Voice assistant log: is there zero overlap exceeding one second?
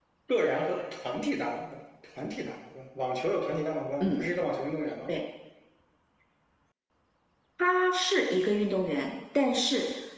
Yes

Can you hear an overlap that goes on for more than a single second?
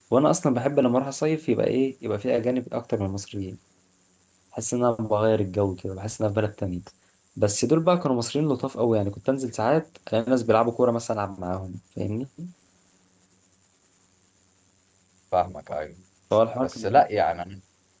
No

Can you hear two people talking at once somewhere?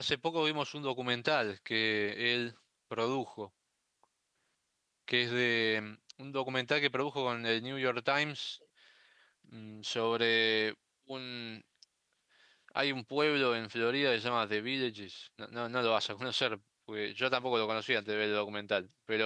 No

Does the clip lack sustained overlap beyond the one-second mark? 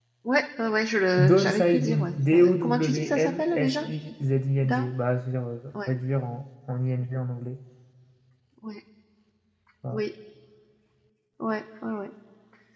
No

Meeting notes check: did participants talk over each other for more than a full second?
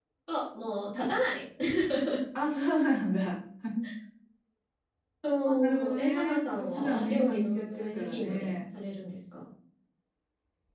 Yes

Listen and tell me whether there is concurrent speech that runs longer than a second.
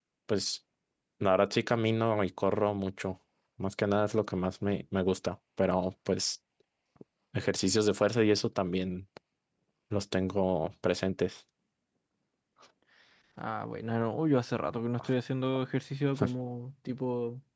No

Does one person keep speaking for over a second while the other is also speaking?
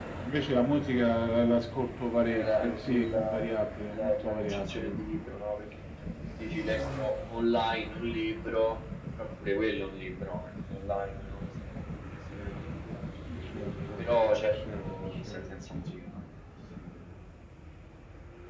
Yes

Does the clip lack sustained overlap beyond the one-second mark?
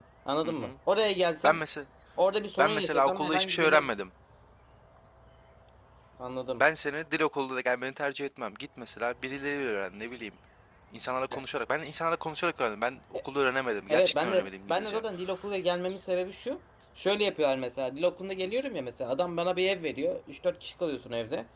No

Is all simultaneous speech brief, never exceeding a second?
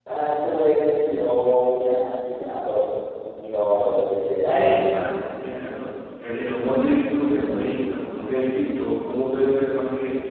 Yes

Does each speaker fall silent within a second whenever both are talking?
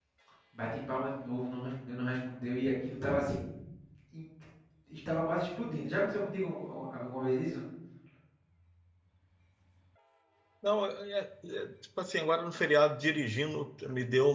Yes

